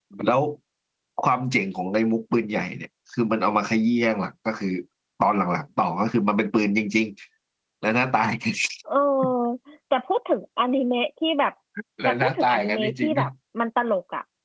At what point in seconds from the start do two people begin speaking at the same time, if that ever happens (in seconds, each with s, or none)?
12.1 s